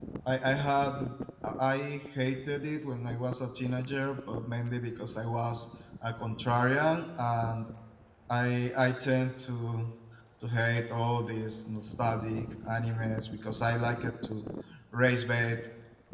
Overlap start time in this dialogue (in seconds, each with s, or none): none